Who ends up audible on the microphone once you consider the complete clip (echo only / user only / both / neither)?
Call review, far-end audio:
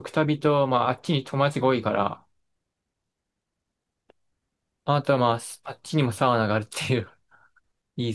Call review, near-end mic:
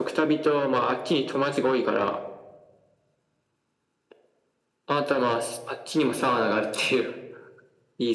echo only